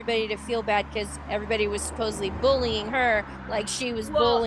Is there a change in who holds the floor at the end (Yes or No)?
Yes